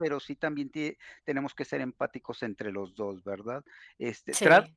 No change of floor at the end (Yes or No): Yes